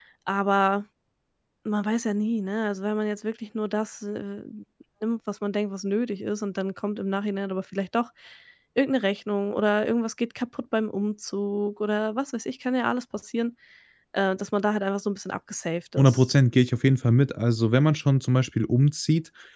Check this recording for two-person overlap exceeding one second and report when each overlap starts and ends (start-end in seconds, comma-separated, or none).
none